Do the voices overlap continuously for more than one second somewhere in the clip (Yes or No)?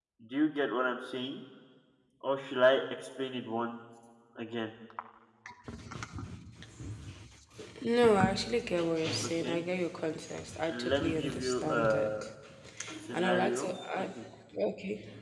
Yes